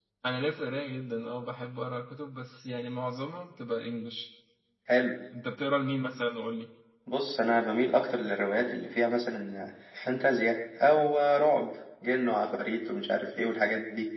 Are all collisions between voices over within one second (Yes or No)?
Yes